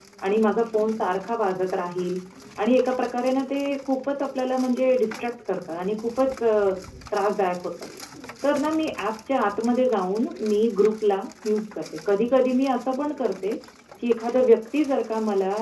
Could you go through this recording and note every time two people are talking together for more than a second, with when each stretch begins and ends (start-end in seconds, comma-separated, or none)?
none